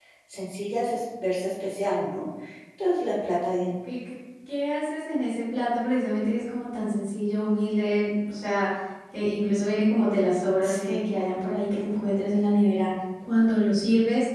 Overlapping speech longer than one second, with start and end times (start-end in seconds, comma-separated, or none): none